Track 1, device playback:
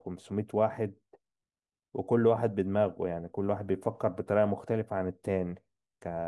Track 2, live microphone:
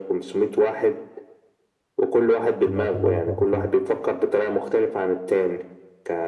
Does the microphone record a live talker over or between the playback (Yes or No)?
Yes